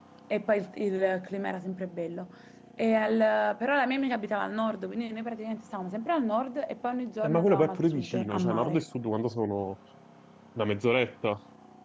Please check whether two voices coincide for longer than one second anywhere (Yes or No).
Yes